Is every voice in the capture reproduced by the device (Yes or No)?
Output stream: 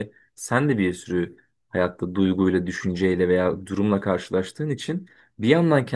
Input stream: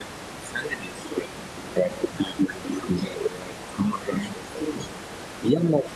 Yes